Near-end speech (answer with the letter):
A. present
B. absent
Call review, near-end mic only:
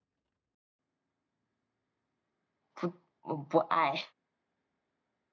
A